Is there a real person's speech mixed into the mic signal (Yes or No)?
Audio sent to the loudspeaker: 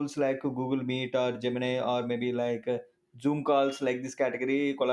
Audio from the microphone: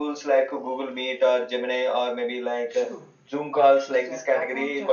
Yes